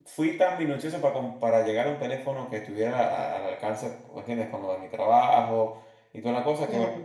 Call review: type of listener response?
listening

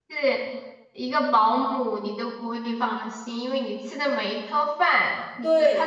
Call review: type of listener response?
listening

